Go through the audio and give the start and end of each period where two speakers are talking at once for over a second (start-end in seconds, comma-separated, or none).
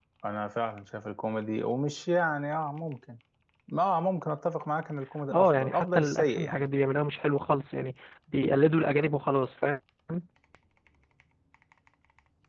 5.3-6.7